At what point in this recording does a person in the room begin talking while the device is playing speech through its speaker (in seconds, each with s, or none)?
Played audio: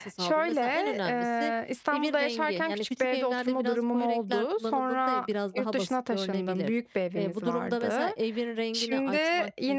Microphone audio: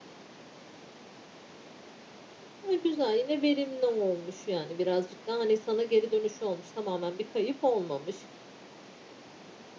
2.6 s